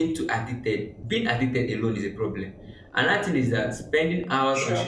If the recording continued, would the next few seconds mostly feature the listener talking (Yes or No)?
No